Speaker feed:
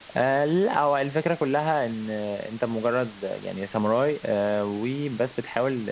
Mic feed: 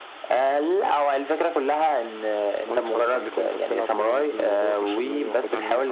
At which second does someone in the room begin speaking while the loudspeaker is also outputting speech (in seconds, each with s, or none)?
2.7 s